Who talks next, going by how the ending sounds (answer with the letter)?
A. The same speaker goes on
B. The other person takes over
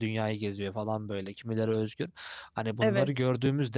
A